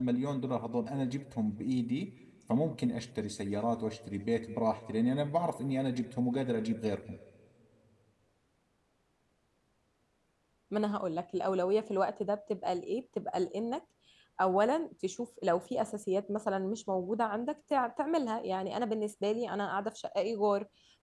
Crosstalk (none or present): none